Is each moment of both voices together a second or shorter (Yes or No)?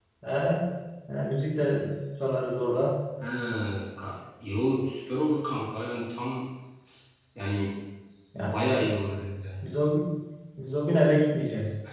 Yes